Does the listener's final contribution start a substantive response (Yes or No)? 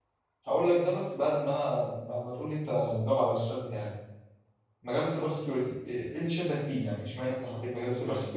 No